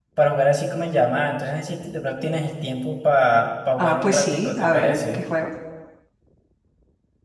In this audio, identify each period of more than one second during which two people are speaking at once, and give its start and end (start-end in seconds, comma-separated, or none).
3.8-5.2